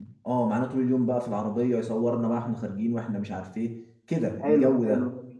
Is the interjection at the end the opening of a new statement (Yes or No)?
Yes